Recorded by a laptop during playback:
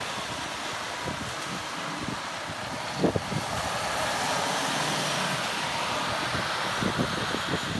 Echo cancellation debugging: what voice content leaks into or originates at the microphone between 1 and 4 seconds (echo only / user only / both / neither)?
neither